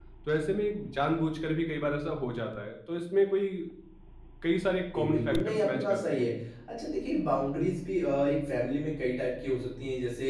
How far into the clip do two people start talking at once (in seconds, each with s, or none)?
5.0 s